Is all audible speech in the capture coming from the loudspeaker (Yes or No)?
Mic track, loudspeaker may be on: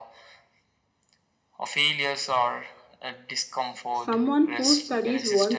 No